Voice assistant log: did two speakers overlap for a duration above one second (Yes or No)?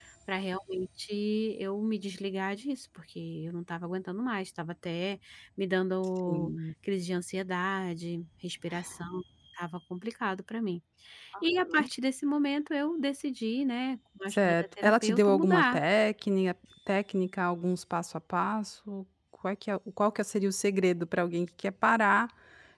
Yes